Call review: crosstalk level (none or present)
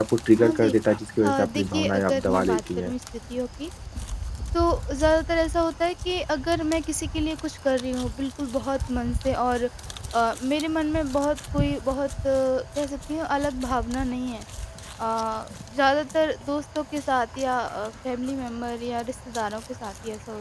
present